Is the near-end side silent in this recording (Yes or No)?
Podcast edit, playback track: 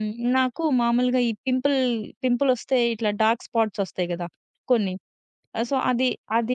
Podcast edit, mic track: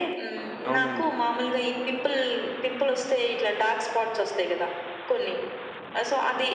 No